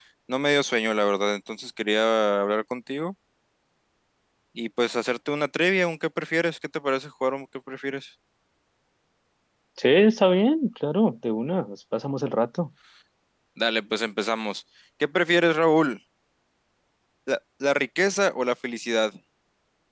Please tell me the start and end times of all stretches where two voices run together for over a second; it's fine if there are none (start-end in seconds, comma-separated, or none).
none